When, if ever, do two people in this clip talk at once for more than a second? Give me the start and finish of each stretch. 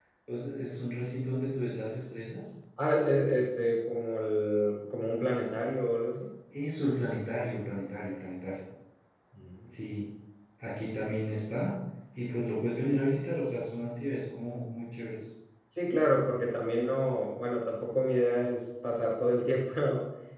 none

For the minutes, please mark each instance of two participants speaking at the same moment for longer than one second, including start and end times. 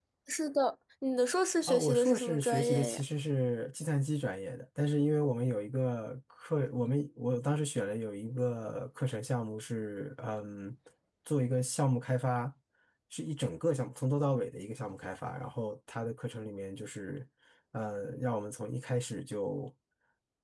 1.7-3.0

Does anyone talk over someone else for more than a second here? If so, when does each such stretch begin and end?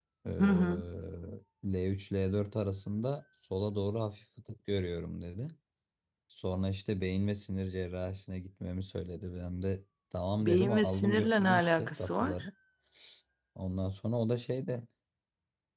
10.4-12.5

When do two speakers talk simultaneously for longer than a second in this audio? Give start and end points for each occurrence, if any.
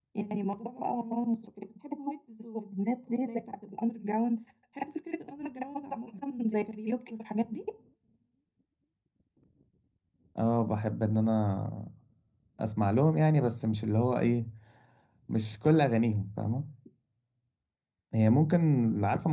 none

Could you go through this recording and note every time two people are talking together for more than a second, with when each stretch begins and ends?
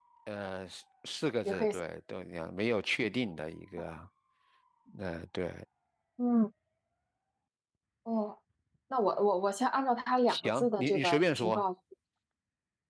10.3-11.6

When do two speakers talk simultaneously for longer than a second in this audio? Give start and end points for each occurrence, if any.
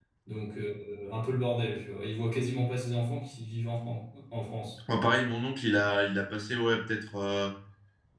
none

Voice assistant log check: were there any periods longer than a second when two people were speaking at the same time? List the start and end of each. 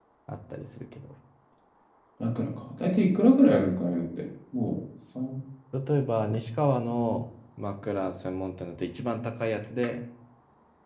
none

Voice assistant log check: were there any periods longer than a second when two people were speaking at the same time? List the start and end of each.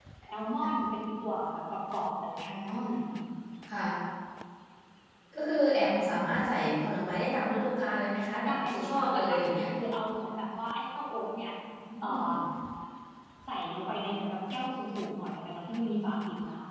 8.5-9.7

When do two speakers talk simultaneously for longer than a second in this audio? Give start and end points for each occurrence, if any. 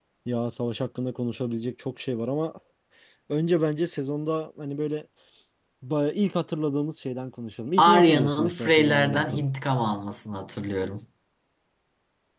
7.8-9.4

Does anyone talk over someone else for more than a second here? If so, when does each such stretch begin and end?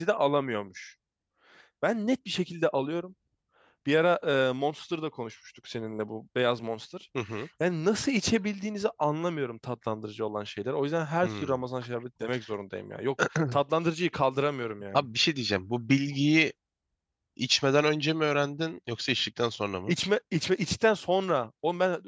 none

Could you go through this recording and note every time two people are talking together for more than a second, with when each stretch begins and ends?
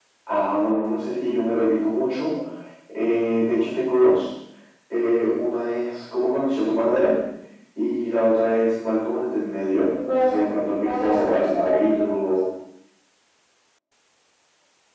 10.8-12.1

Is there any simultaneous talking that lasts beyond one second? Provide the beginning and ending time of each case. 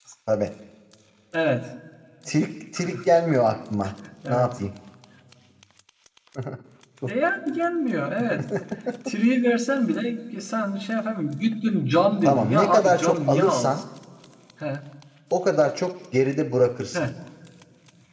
12.2-13.8

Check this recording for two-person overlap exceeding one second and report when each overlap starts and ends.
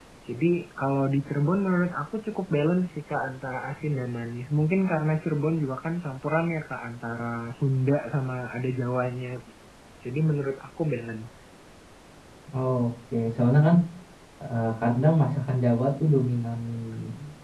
none

